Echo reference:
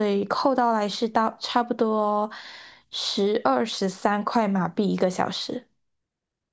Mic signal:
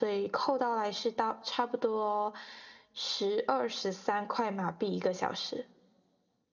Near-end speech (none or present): none